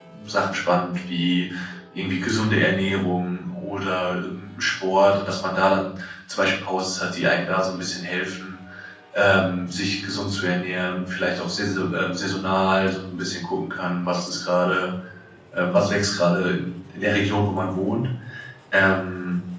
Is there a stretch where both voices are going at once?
No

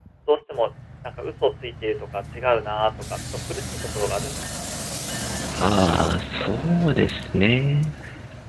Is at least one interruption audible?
No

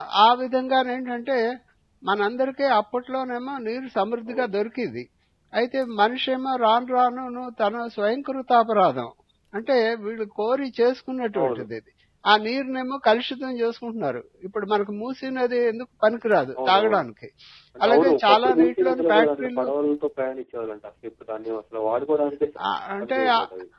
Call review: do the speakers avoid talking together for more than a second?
No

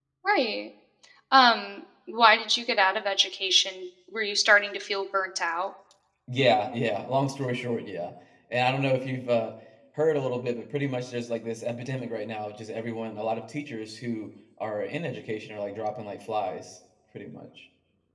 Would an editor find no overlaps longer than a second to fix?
Yes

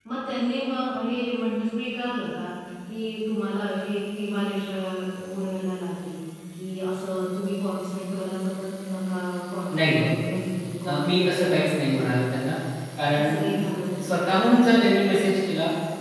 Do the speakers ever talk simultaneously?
Yes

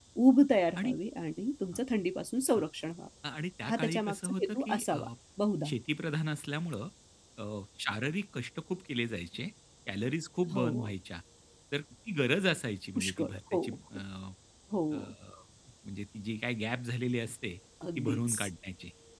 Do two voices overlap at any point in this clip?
Yes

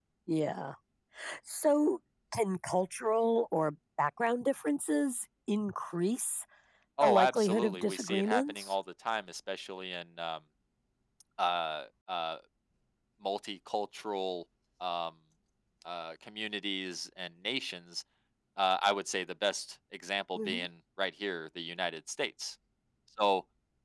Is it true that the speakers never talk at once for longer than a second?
No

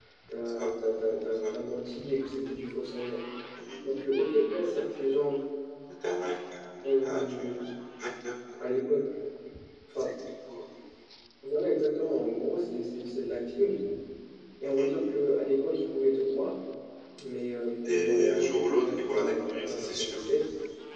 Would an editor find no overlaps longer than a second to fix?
No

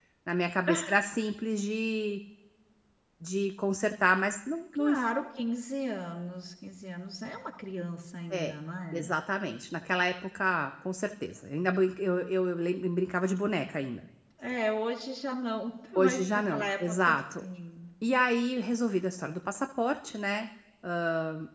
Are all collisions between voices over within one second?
No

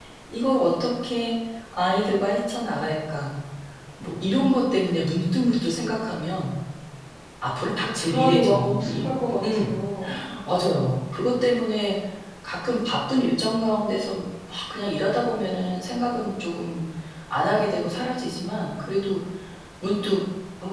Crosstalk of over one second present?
Yes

